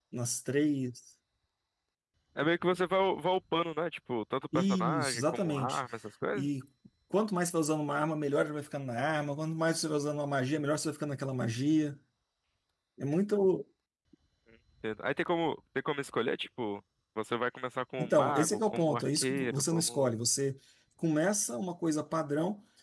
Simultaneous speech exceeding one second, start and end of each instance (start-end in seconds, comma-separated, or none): 4.5-5.8, 18.0-20.1